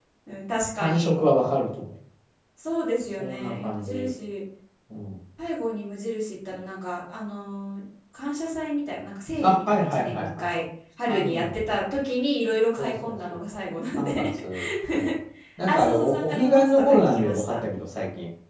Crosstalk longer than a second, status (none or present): present